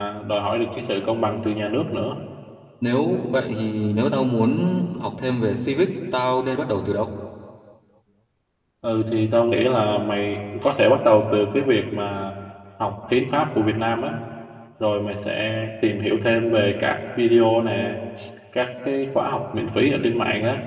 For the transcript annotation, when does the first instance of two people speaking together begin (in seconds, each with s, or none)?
none